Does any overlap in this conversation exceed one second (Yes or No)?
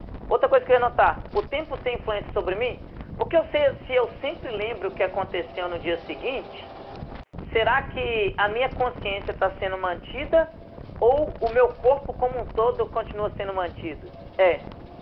No